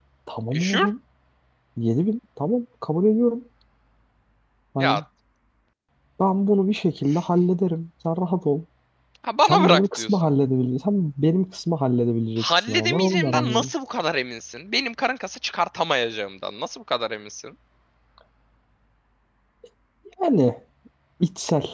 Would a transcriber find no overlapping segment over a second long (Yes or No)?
No